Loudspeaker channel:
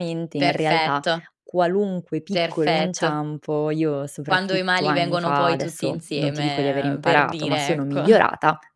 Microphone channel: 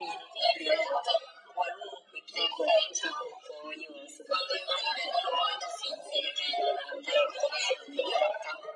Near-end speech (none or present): none